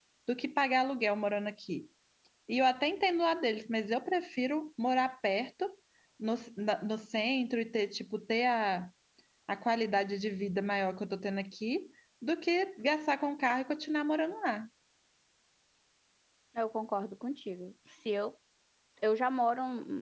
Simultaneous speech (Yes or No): No